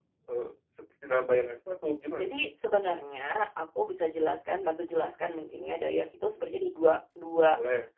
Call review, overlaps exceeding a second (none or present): none